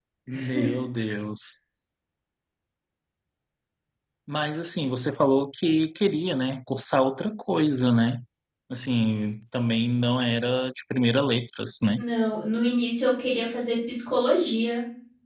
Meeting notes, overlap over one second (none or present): none